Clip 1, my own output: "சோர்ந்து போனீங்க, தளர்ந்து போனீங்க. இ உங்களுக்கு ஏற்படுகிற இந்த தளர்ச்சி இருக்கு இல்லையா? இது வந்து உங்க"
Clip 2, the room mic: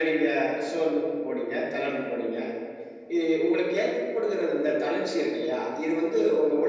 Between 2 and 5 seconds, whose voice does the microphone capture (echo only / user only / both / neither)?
echo only